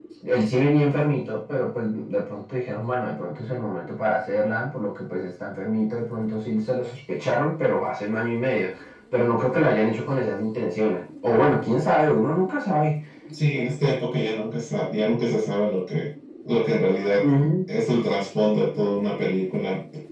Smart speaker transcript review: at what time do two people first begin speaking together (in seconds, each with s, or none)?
none